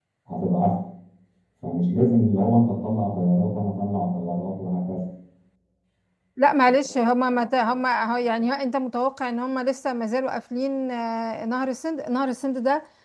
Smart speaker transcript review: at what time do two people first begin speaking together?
none

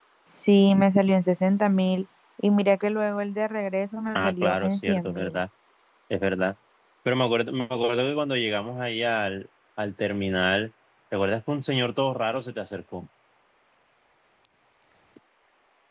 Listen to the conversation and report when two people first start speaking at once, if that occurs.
4.2 s

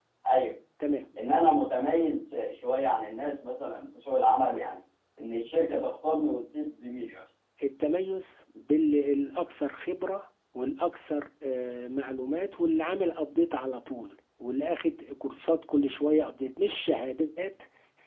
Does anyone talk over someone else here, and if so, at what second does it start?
none

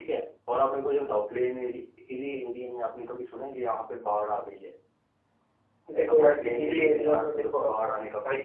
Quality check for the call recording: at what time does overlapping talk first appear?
6.0 s

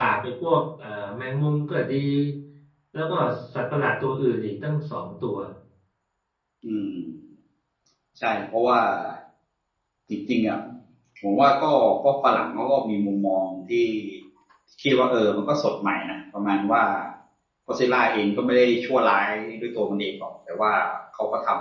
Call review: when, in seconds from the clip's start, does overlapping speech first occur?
none

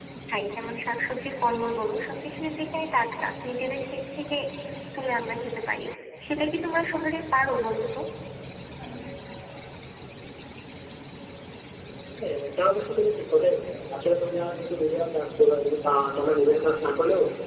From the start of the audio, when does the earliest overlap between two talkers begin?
none

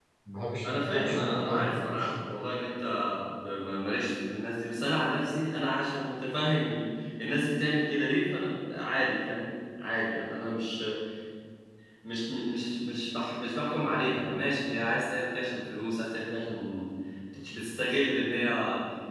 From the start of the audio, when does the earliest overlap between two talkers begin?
0.6 s

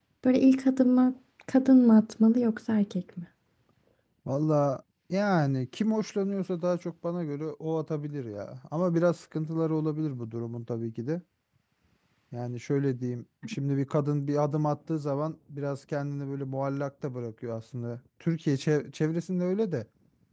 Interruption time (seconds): none

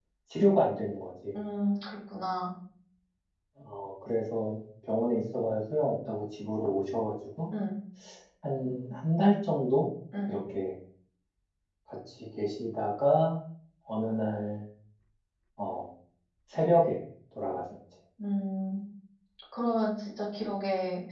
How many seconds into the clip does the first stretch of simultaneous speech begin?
none

